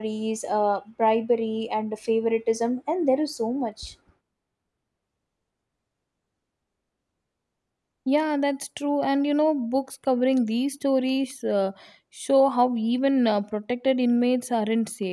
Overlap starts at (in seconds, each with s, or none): none